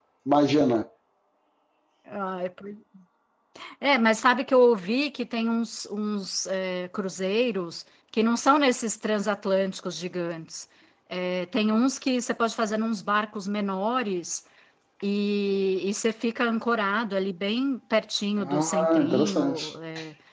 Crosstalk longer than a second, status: present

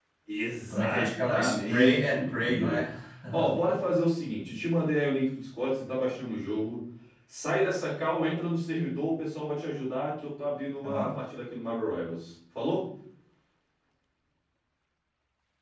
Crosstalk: present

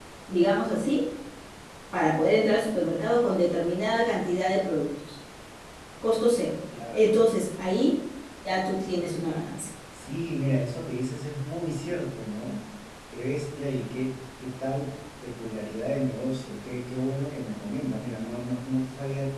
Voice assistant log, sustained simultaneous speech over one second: none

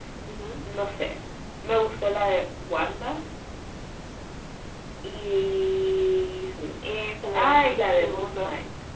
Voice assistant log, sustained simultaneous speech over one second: present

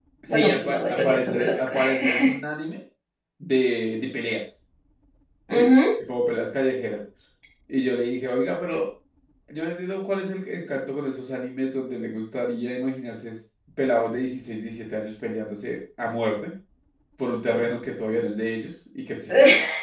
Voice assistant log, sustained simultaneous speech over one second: present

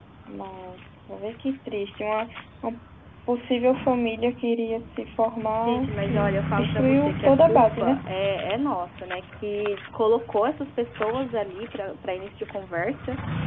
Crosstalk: present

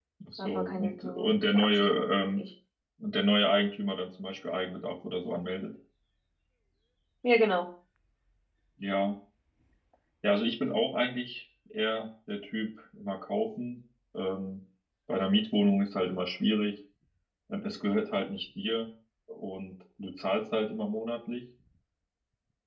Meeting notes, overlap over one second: present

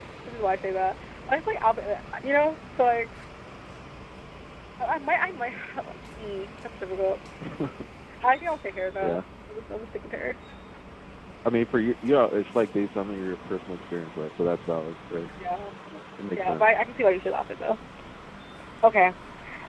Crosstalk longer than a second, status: none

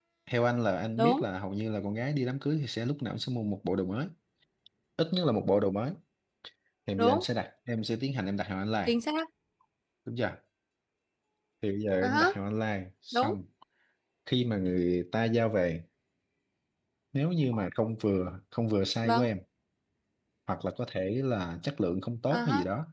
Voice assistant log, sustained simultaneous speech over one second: none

